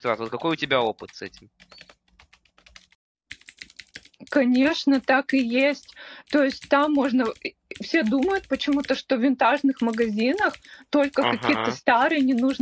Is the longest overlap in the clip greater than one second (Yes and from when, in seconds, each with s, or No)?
No